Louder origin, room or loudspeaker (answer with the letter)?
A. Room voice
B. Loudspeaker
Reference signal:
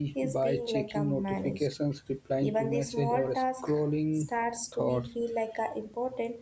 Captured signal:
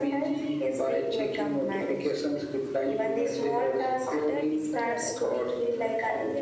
B